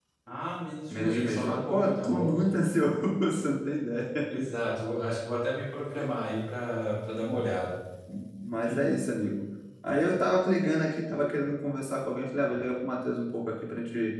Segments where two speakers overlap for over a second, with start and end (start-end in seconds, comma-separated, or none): 0.9-2.4